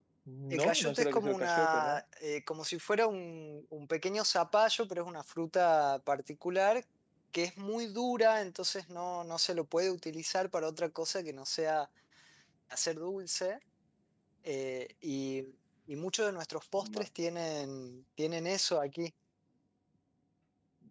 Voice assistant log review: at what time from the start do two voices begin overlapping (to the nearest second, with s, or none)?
1 s